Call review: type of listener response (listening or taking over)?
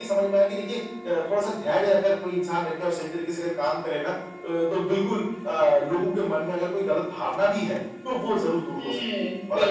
taking over